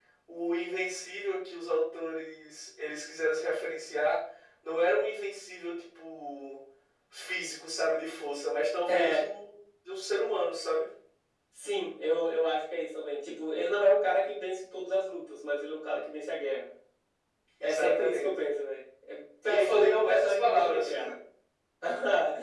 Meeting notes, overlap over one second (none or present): present